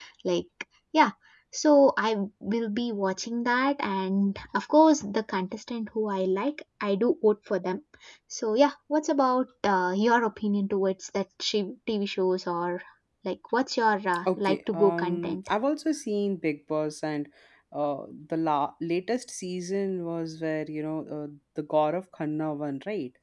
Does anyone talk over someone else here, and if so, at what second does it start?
14.2 s

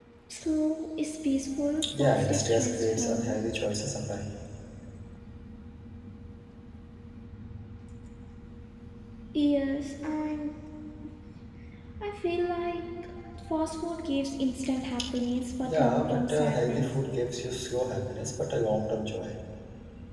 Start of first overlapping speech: 2.0 s

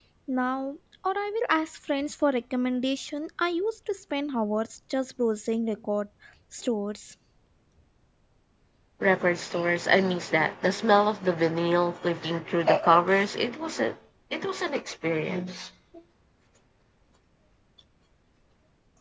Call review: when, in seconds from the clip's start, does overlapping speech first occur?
none

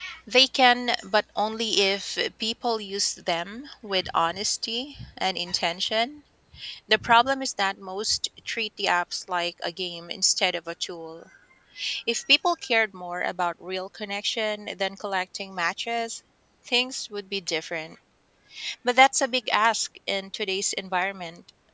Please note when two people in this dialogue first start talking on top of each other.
none

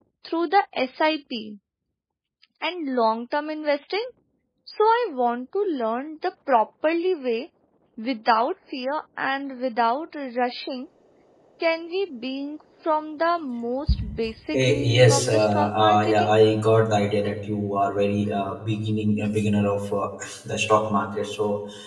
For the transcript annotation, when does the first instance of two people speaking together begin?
14.5 s

